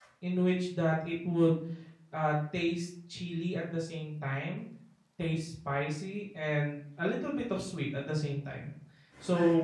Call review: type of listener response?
listening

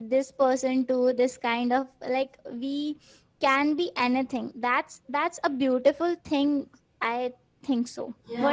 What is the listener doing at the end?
taking over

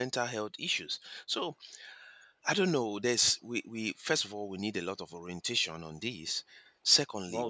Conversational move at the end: listening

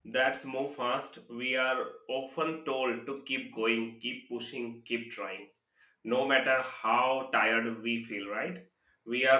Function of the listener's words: listening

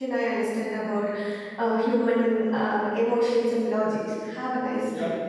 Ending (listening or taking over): taking over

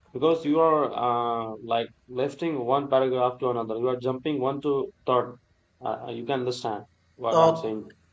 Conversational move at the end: taking over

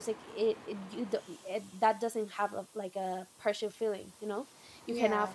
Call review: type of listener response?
listening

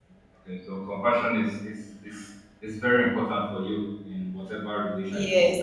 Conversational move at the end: taking over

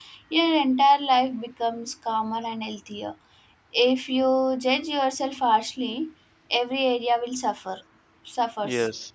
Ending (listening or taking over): taking over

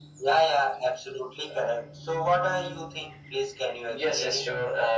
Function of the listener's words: taking over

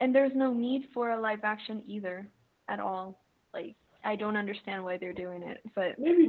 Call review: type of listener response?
taking over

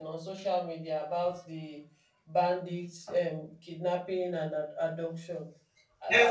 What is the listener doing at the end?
taking over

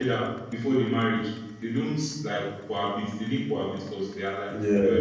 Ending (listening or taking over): listening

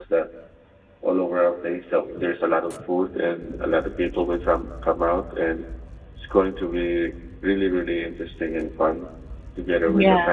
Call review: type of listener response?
listening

